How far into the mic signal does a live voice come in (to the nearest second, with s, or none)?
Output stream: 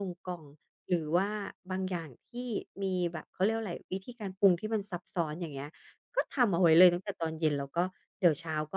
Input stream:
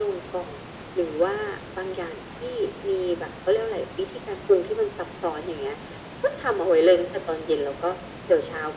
none